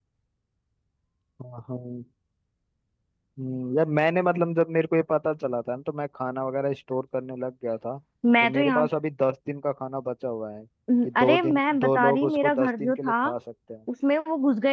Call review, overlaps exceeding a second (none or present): present